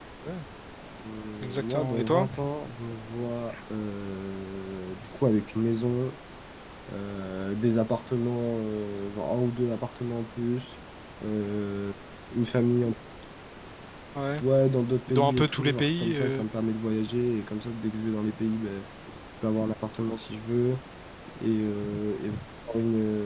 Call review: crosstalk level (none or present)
present